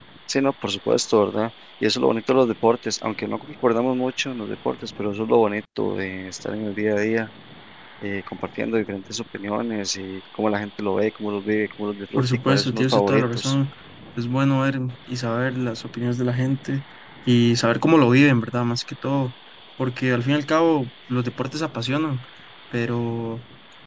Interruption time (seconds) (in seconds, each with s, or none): 12.2 s